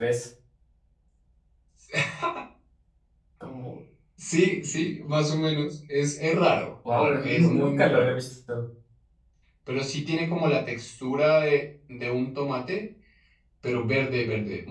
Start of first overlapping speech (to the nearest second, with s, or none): 7 s